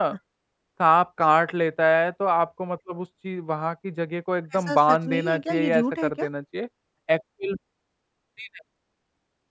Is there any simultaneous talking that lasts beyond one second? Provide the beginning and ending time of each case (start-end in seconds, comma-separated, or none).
4.5-6.2